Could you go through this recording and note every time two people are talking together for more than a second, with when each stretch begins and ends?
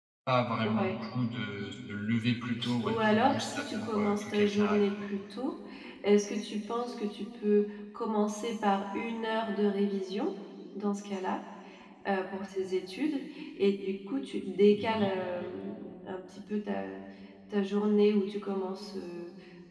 2.8-4.9

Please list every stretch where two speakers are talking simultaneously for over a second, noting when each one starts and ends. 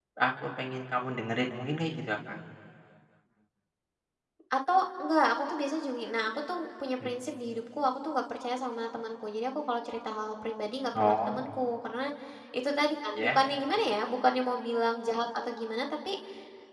none

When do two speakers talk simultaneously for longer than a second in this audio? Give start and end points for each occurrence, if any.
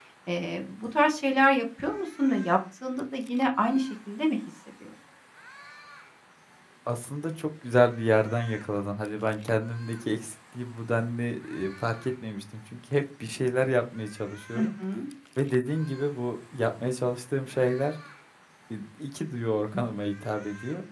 none

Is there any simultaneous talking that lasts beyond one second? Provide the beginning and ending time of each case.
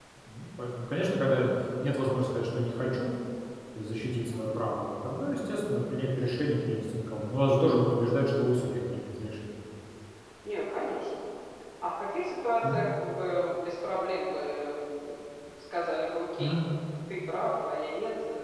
none

